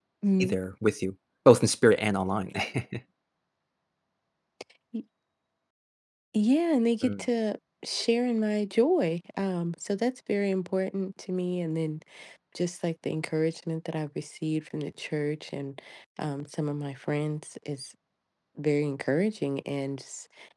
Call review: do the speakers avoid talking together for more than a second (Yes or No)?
Yes